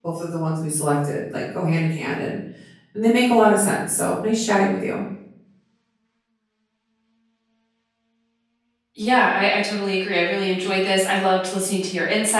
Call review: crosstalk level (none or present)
none